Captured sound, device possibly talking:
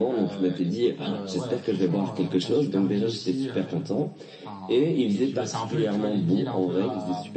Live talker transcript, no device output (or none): none